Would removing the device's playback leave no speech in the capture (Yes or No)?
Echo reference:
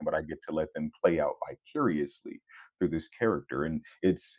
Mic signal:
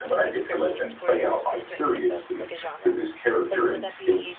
No